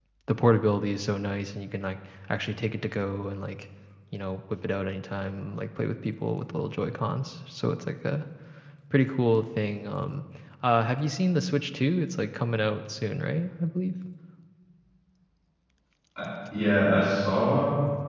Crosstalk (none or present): none